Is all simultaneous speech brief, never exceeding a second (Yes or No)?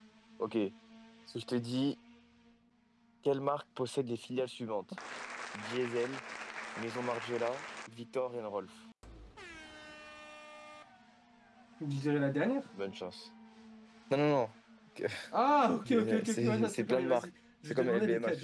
No